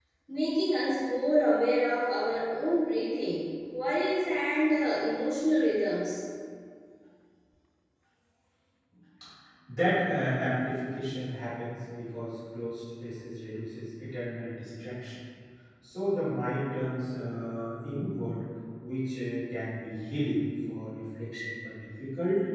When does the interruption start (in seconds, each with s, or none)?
none